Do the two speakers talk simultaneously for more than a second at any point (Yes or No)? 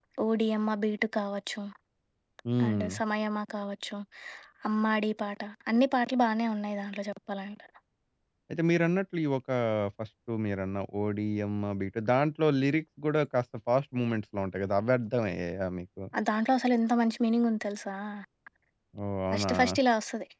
No